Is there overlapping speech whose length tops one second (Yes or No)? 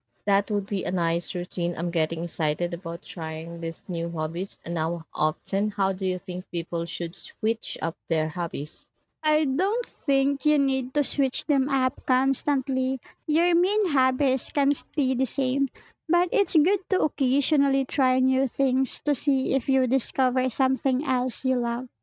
No